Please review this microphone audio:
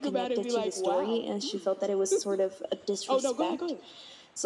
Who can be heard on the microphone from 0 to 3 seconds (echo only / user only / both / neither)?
echo only